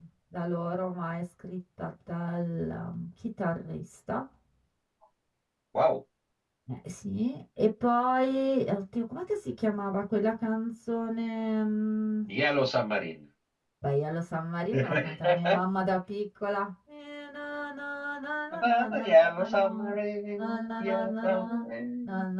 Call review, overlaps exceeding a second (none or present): present